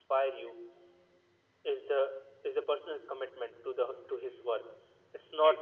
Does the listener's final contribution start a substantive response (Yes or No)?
No